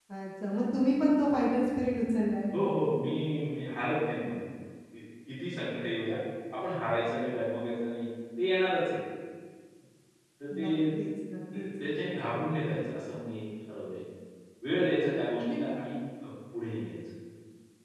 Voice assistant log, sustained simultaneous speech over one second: none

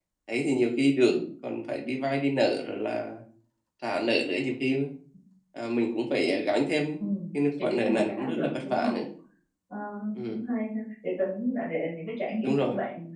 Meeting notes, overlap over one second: present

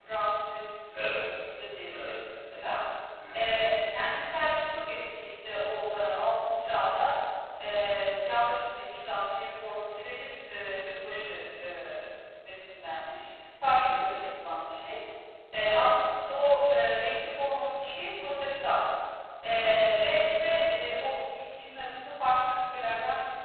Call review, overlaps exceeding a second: none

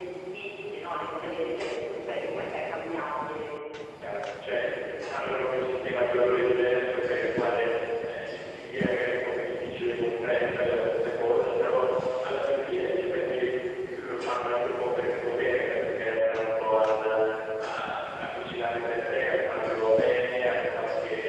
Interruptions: none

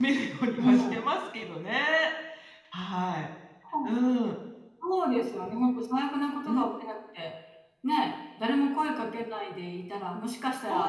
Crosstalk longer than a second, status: none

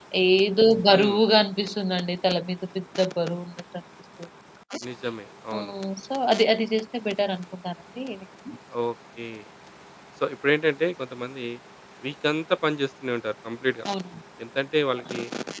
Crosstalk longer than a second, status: none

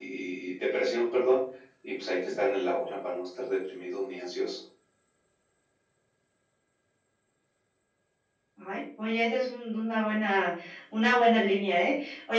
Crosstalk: none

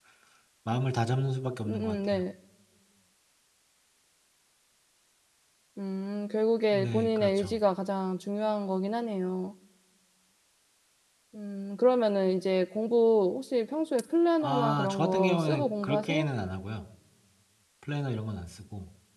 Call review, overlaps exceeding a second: present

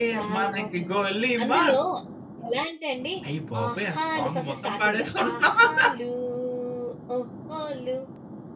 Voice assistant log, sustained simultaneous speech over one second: present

